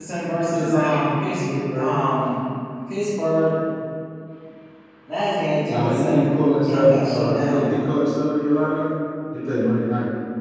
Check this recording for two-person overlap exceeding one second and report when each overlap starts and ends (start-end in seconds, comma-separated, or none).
5.7-7.6